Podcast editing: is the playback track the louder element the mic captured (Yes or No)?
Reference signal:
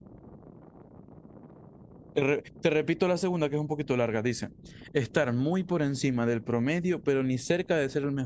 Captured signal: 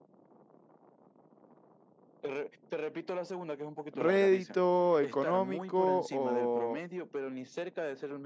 No